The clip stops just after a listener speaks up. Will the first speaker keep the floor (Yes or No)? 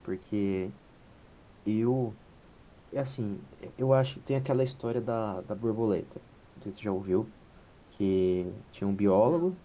Yes